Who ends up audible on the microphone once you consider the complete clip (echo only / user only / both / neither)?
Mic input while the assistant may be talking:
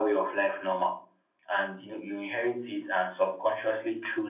echo only